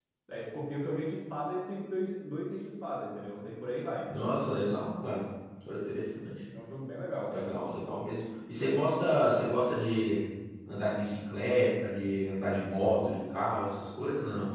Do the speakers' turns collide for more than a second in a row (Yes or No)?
No